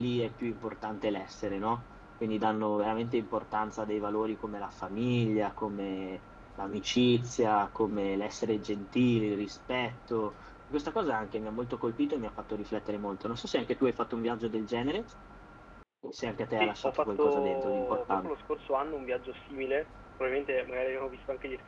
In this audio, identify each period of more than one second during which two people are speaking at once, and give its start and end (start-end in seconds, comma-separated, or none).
16.6-18.3